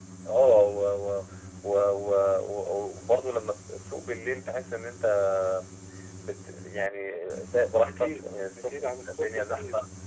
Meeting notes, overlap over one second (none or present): present